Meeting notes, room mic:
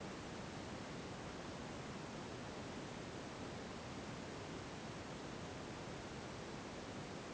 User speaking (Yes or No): No